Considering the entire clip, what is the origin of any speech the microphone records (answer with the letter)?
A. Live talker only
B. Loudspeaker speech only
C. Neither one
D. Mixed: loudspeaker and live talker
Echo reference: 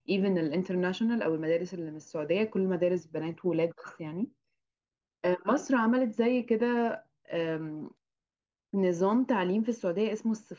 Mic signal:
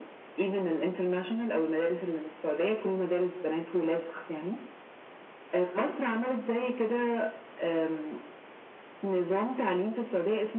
B